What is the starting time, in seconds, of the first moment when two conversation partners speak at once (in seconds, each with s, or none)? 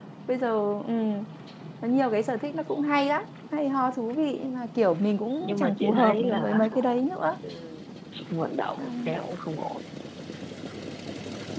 5.4 s